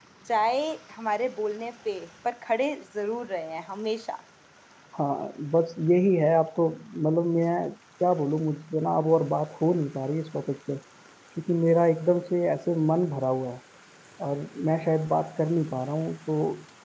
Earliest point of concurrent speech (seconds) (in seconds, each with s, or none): none